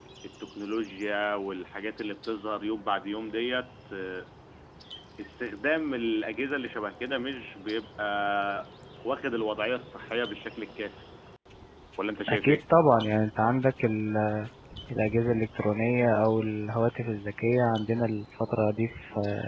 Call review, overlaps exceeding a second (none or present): none